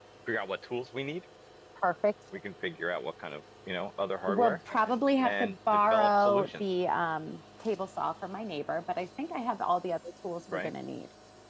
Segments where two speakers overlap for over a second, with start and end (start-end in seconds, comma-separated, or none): 5.2-6.6